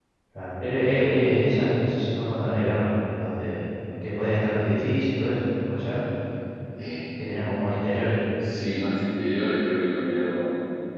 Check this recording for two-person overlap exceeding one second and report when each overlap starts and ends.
none

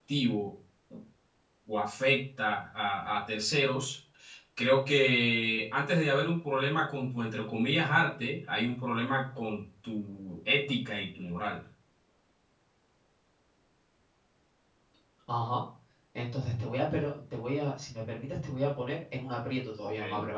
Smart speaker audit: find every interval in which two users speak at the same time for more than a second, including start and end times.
none

